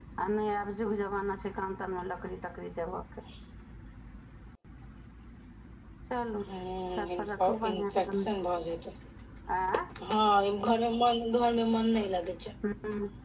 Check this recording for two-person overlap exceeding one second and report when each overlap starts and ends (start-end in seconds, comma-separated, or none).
6.4-8.3